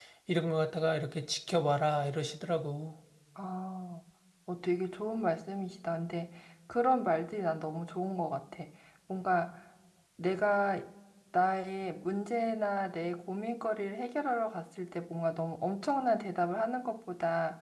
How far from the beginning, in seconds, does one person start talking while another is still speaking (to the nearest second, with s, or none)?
none